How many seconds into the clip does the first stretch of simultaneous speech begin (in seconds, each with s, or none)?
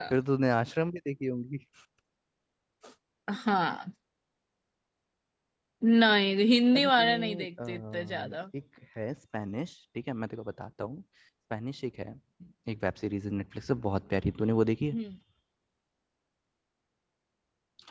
6.8 s